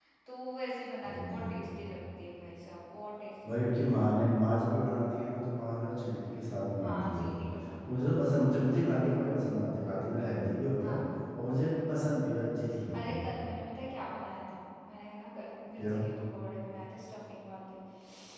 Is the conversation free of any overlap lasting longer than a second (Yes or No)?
Yes